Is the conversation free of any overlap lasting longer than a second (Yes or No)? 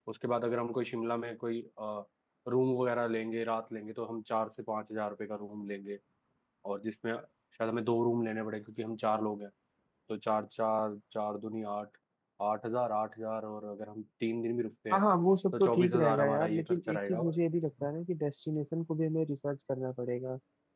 No